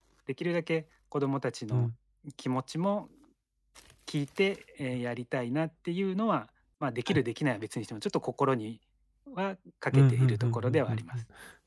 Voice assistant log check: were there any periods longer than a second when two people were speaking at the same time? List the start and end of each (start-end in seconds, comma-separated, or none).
9.9-11.1